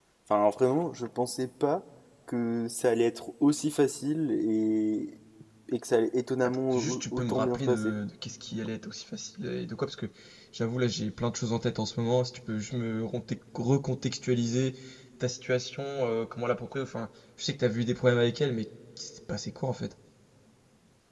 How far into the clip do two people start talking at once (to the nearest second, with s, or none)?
7 s